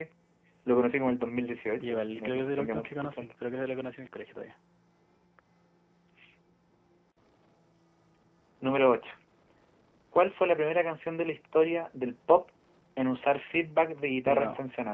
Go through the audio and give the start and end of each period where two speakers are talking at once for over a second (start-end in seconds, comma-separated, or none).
1.8-3.3